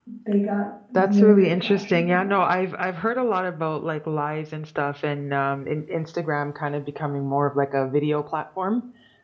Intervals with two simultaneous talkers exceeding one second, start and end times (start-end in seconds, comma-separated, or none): 1.1-2.4